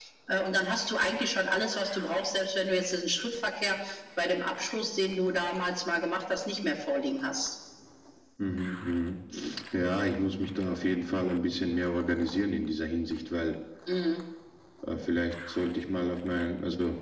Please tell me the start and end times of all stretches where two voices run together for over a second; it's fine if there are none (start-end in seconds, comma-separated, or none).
none